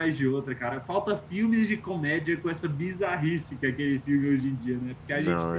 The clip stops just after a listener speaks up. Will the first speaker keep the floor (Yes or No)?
No